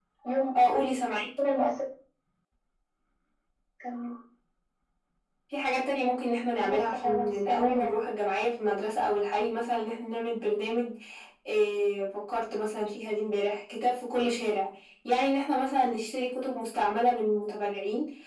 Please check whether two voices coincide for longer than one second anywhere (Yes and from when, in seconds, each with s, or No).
Yes, from 6.6 s